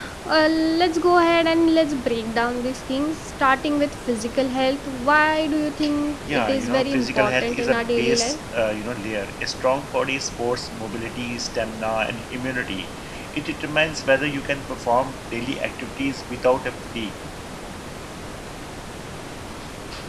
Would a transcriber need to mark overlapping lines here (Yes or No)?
Yes